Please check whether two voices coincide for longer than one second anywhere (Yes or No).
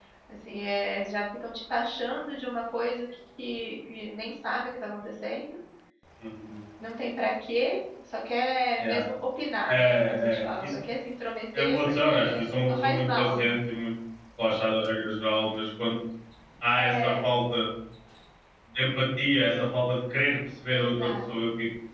Yes